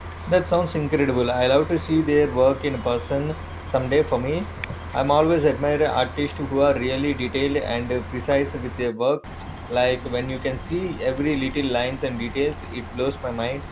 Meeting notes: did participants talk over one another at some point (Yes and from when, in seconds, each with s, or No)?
No